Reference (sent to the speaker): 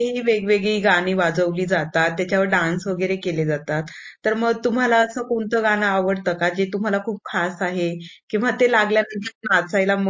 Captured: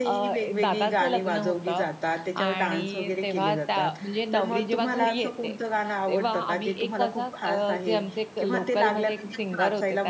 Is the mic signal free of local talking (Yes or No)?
No